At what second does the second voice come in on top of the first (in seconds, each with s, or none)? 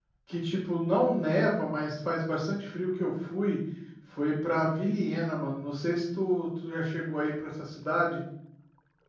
none